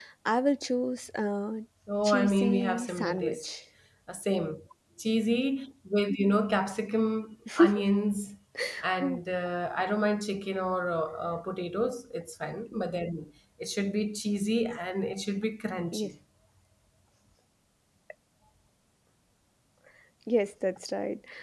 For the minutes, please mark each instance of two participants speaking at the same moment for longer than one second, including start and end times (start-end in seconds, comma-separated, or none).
2.0-3.4